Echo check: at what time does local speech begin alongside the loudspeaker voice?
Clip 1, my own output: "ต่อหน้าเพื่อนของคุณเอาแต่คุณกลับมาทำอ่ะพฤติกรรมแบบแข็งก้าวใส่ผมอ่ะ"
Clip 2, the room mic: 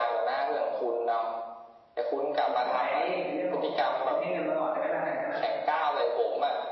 2 s

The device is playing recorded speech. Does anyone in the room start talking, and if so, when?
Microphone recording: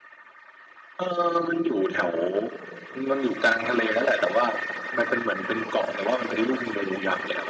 none

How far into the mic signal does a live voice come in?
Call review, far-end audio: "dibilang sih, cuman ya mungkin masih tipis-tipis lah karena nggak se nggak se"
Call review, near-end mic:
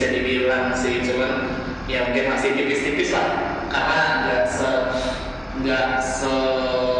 none

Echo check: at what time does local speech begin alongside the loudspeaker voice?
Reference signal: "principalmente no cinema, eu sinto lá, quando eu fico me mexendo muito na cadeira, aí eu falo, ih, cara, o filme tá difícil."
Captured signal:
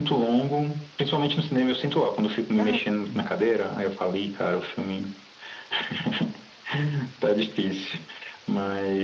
3 s

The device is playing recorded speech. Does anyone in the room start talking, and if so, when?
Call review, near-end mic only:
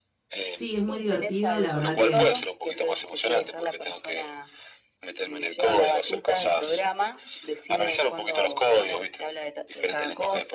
0 s

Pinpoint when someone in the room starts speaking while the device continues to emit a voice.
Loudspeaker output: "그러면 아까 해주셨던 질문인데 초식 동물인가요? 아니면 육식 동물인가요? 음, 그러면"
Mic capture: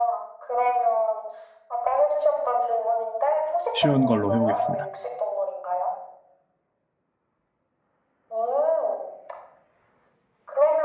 4 s

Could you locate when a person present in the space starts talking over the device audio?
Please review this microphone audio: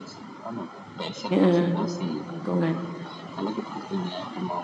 1 s

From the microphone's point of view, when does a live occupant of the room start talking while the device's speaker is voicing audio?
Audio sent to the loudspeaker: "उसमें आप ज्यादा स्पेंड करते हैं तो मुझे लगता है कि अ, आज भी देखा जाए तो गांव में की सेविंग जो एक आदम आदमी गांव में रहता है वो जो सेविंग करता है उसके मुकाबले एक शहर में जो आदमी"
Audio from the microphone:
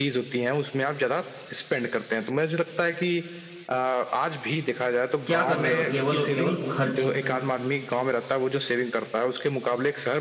5 s

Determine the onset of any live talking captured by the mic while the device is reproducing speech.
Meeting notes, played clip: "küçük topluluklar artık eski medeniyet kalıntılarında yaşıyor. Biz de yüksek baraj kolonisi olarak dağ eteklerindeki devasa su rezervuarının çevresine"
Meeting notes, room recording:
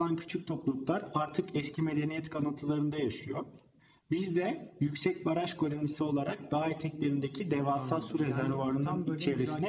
8 s

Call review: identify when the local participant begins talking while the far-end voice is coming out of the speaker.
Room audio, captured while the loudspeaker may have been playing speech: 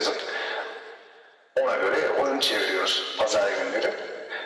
none

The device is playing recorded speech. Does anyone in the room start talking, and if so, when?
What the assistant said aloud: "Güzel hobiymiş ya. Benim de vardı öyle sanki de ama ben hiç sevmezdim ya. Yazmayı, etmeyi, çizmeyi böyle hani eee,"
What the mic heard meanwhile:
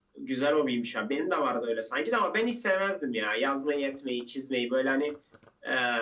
none

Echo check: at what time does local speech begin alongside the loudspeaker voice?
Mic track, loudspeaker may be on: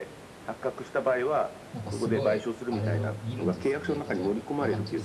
2 s

